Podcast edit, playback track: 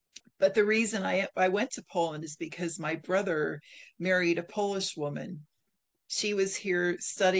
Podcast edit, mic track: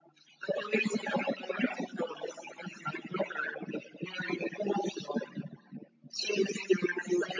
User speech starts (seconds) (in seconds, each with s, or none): none